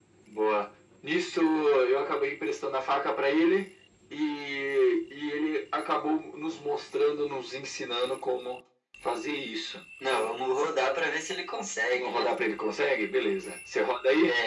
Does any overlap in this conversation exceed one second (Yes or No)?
No